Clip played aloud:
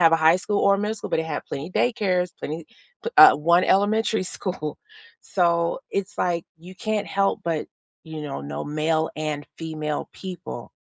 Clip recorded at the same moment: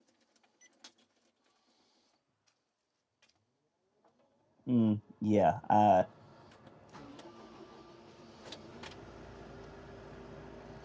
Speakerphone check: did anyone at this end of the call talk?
Yes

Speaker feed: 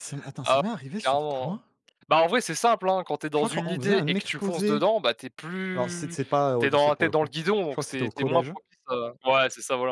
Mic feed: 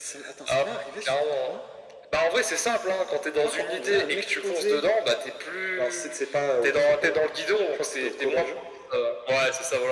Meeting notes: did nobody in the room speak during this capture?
Yes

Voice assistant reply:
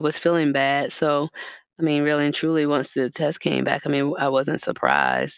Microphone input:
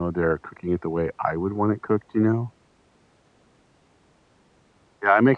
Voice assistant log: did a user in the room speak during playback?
Yes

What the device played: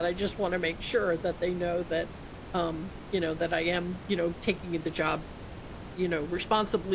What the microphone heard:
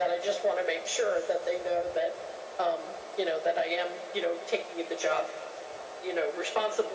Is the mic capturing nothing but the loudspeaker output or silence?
Yes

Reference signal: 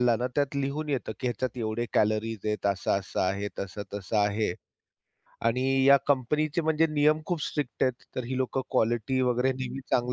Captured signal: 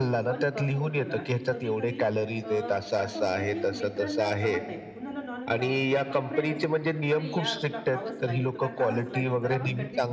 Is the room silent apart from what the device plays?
No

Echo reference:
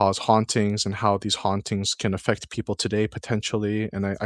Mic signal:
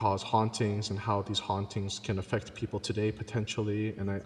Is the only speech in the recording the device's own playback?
Yes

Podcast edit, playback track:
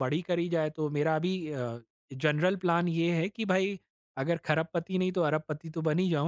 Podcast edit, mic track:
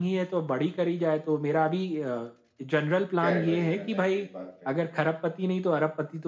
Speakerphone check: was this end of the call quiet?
No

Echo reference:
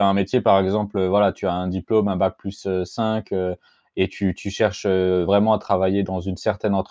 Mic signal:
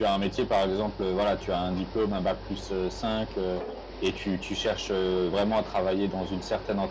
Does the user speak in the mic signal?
No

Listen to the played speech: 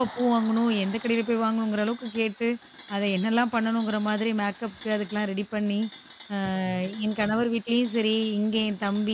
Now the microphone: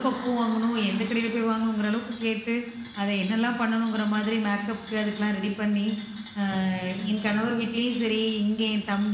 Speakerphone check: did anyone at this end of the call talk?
No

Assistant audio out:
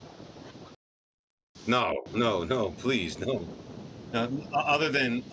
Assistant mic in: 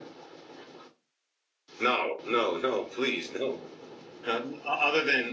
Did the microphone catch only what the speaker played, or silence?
Yes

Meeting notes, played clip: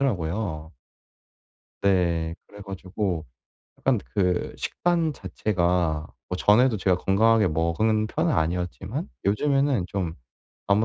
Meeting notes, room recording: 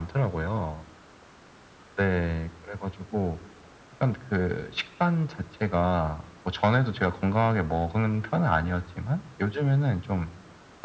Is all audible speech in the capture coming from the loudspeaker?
Yes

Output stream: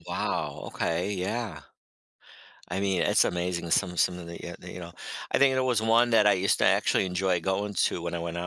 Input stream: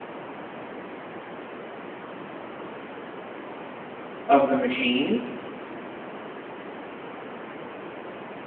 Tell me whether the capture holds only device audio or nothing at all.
No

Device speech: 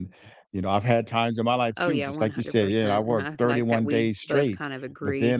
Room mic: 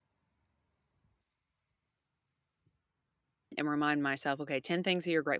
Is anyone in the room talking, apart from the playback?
Yes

